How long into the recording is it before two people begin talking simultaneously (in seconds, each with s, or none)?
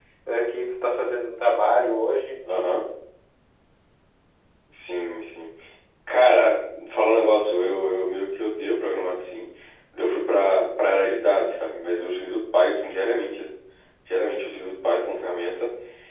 none